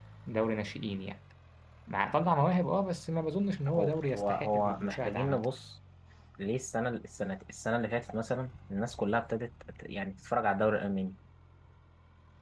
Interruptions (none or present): present